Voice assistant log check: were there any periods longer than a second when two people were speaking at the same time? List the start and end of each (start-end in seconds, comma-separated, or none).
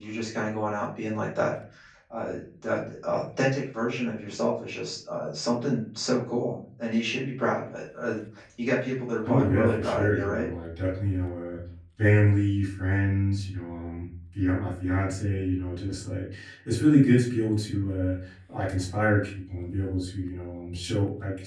9.3-10.5